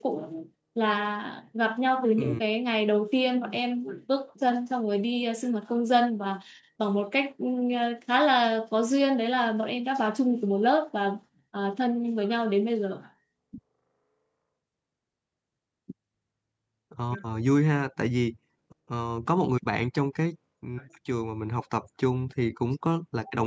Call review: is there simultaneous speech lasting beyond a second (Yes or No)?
No